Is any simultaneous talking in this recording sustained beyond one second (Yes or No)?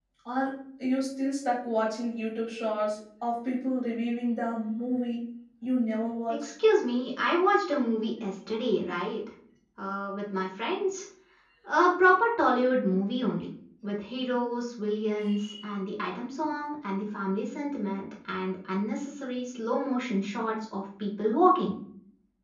No